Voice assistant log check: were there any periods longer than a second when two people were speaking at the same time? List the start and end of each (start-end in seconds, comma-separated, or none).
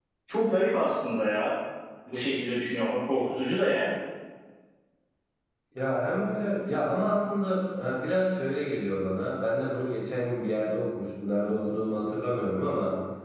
none